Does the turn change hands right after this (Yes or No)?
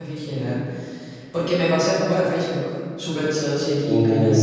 No